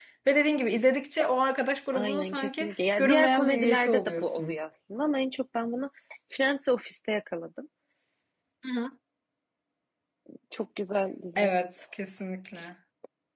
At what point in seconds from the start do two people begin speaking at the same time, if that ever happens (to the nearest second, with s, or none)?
2 s